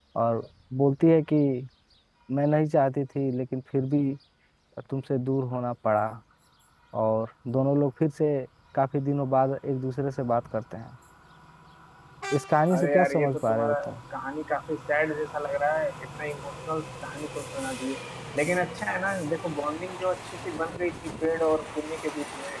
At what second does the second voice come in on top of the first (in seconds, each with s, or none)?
12.7 s